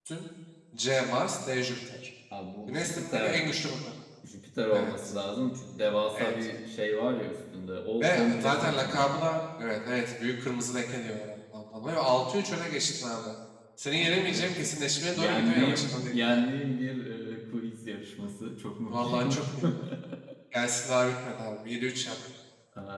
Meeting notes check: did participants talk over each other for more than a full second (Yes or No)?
Yes